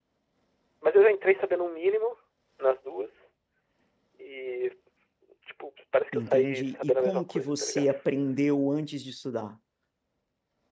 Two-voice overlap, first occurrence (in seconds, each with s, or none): 6.1 s